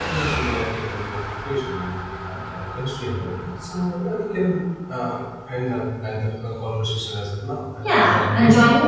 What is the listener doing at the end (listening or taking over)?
taking over